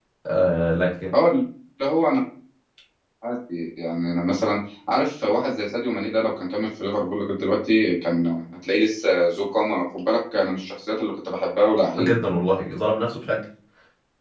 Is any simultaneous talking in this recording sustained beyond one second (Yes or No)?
No